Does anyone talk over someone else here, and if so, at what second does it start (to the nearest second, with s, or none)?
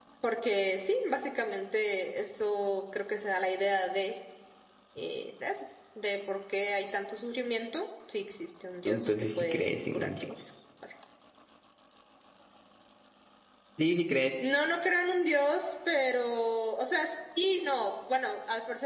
9 s